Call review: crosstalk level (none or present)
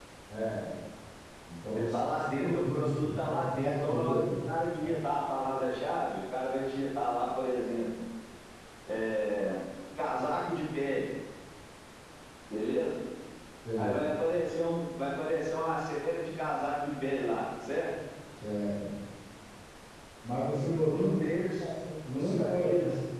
present